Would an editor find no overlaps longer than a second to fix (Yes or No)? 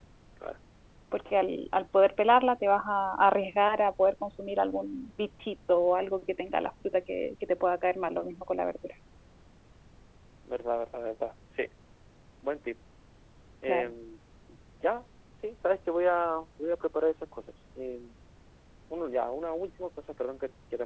Yes